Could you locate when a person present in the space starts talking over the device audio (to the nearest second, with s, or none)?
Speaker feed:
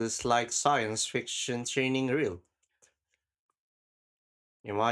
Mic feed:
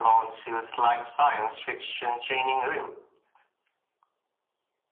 none